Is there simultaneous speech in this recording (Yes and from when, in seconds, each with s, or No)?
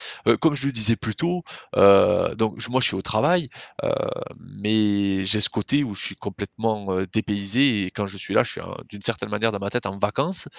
No